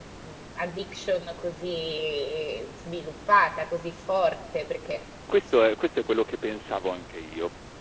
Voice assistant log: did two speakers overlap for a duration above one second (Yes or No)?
No